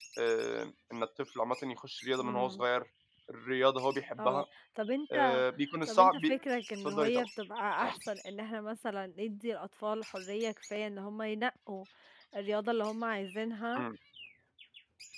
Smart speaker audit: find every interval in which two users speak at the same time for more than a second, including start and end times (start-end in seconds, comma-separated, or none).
none